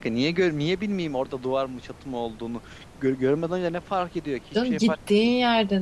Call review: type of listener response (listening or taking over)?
taking over